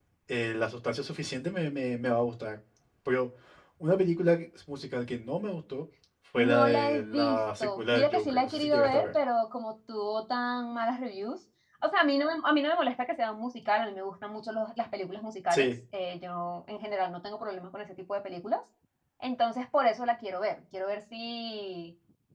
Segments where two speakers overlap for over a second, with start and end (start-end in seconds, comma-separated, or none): 6.4-9.1